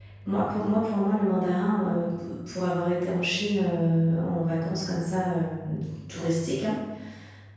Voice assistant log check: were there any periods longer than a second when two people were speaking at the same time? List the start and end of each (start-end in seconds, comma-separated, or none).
none